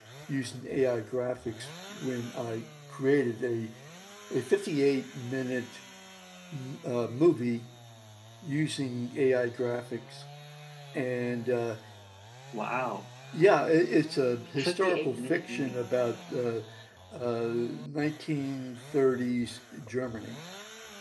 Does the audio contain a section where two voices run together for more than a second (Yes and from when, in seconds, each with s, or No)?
Yes, from 14.5 s